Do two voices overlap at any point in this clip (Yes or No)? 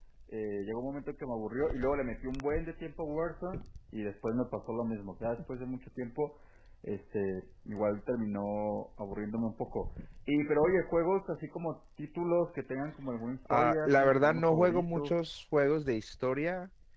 Yes